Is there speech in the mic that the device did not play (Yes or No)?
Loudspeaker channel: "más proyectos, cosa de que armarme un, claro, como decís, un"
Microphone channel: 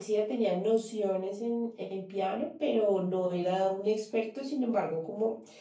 Yes